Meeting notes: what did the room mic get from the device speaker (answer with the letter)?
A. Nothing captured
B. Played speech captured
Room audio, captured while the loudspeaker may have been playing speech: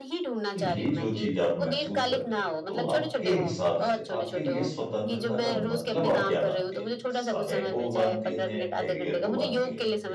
B